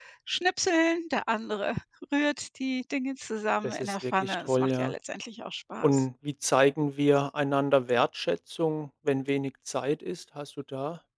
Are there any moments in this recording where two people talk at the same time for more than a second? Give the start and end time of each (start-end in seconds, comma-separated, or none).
3.6-4.9